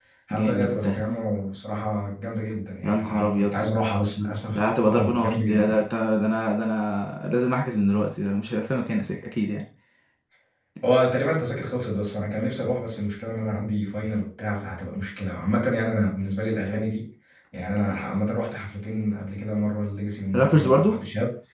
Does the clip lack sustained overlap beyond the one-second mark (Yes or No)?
No